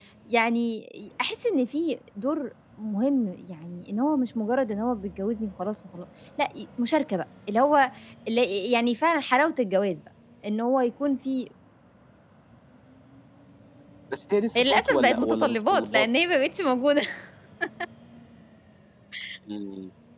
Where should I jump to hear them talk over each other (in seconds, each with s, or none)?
14.6 s